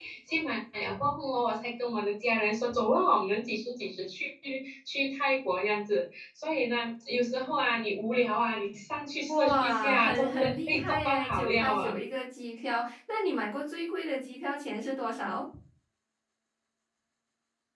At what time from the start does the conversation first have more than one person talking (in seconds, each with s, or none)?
9.3 s